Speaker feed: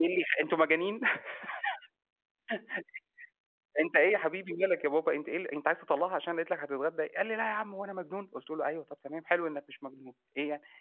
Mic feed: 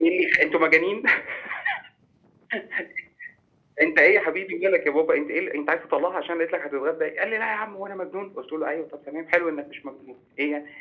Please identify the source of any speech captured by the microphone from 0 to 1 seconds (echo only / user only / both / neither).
echo only